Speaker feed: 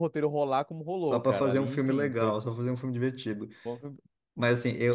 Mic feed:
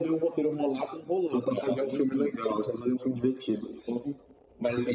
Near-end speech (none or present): none